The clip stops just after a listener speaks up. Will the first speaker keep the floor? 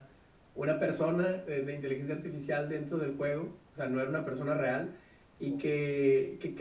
Yes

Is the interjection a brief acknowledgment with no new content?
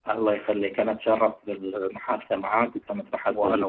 Yes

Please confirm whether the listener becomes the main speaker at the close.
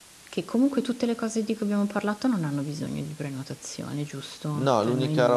Yes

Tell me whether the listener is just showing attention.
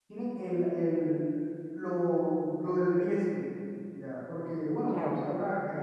Yes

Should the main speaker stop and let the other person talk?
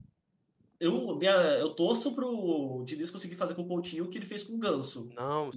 Yes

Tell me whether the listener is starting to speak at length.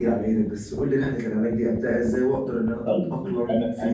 Yes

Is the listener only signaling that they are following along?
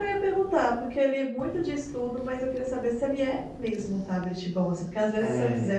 Yes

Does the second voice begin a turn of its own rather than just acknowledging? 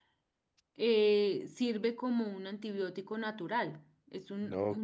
Yes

